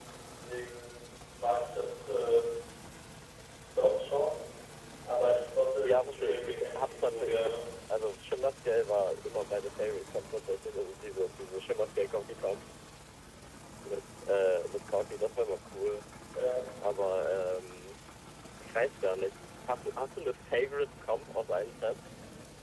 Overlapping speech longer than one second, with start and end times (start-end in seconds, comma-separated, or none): 5.8-7.5